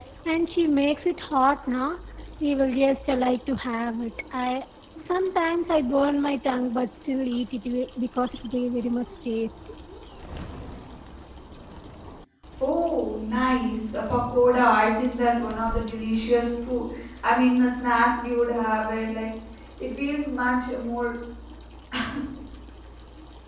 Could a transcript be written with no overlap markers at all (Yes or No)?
Yes